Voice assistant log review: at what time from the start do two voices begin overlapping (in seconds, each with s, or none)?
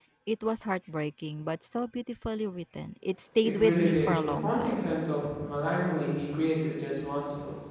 3.4 s